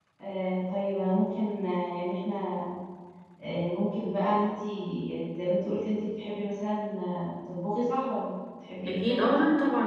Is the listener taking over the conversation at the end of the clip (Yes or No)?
Yes